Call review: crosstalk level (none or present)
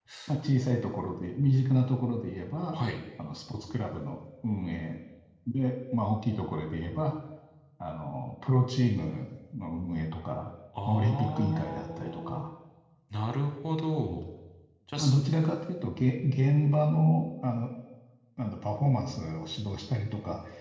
present